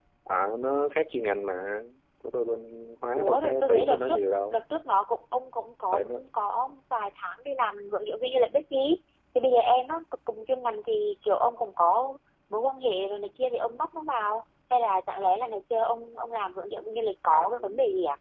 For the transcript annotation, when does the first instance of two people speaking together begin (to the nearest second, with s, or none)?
3 s